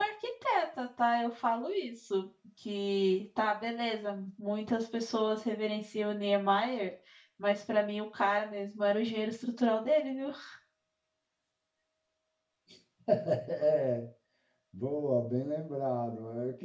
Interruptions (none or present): none